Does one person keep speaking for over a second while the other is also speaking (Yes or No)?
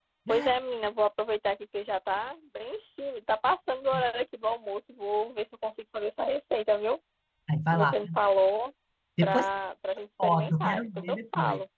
Yes